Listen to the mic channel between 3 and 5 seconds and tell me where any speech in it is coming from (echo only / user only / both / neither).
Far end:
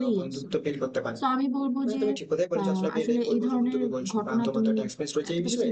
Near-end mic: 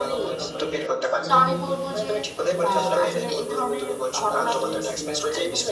both